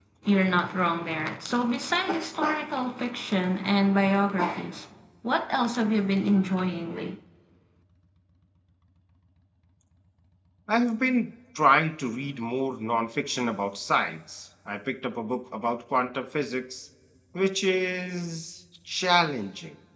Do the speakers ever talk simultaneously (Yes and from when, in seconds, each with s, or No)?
No